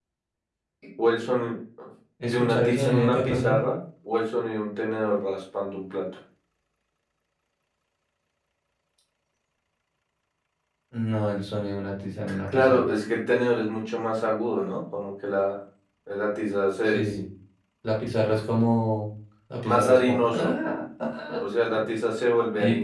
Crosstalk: present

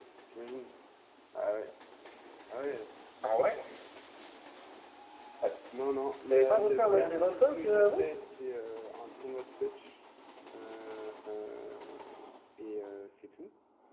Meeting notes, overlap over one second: present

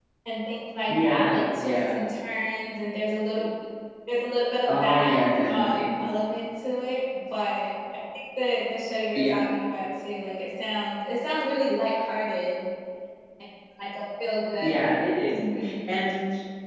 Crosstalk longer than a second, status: present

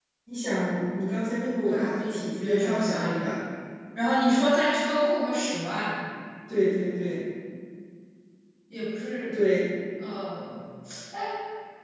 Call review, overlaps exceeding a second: present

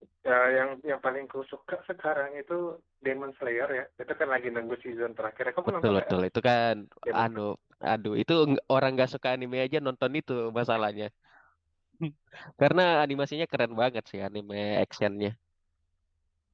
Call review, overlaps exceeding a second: none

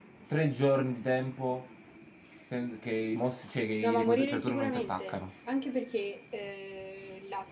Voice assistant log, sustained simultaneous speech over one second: present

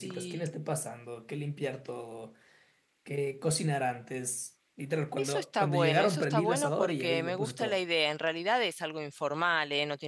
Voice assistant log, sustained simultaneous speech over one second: present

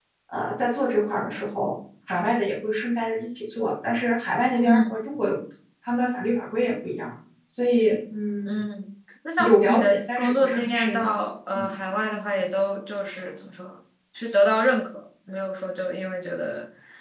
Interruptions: present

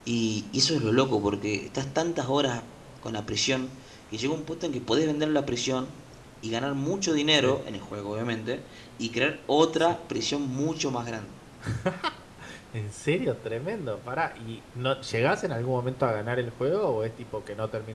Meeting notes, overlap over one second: none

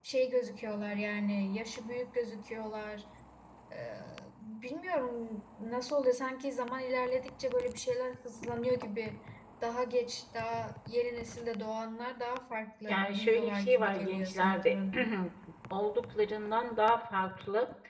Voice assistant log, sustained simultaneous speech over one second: present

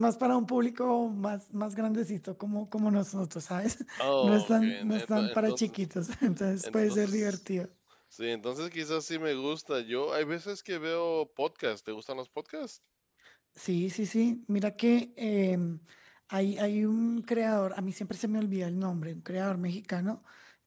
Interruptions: present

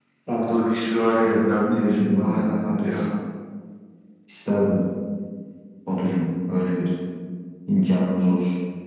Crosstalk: present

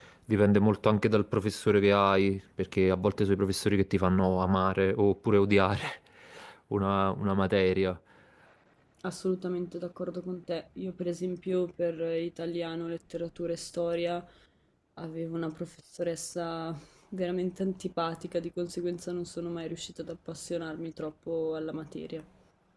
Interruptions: none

